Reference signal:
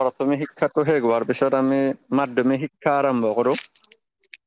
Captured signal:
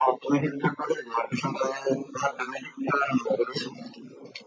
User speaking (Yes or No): No